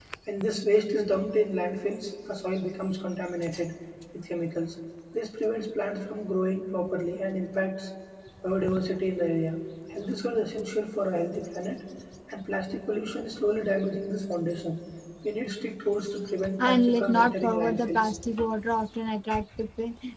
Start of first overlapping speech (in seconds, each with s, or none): 16.6 s